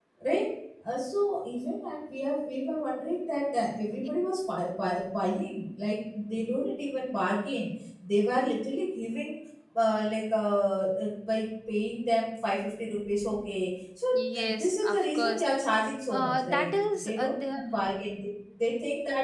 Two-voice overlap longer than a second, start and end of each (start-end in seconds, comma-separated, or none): 14.1-15.4, 16.1-17.6